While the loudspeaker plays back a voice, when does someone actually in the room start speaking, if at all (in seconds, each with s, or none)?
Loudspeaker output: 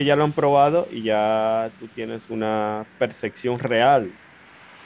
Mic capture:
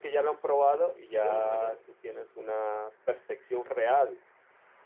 1.1 s